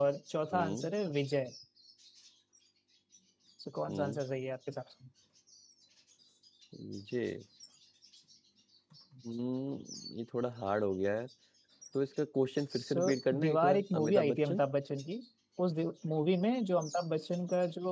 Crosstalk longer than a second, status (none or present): present